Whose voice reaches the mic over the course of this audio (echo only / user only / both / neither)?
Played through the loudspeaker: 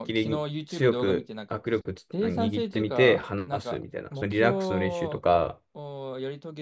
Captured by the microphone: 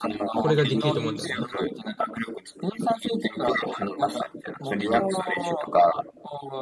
both